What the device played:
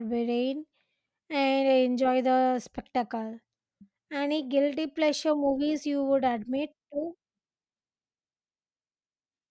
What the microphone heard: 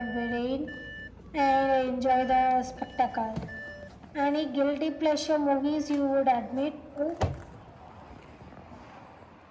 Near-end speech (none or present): none